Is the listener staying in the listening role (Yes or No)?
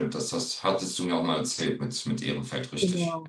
No